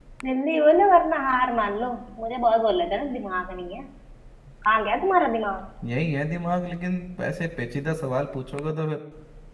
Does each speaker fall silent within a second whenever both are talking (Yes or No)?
Yes